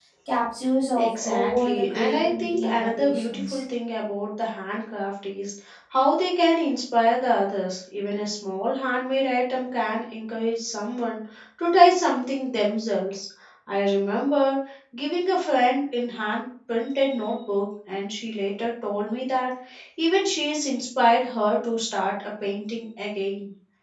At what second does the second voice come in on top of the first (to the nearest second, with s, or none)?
1 s